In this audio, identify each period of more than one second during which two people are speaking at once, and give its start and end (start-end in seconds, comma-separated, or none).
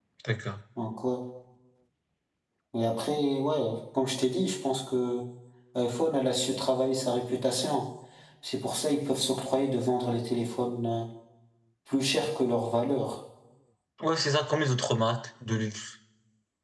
none